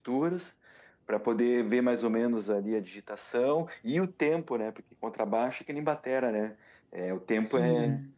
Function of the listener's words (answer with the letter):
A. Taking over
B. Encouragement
A